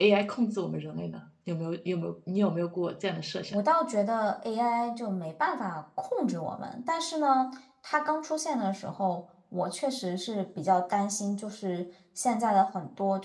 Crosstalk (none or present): none